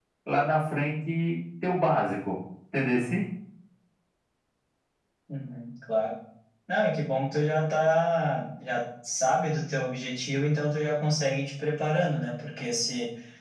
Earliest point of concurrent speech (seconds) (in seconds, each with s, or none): none